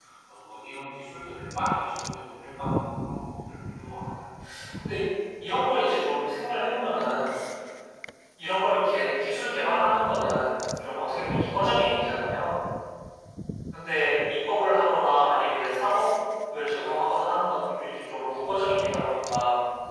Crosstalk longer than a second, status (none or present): none